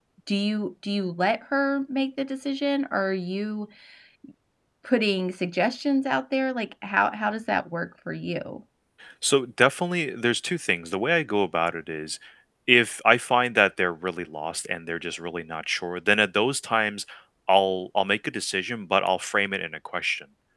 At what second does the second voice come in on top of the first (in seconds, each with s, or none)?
none